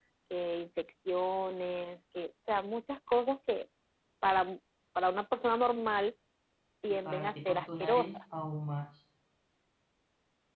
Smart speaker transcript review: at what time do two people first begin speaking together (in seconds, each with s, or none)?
6.9 s